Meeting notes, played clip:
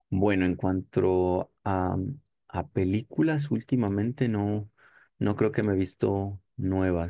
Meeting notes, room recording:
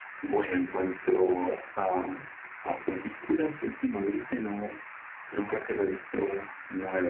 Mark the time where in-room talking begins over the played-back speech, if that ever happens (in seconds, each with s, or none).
none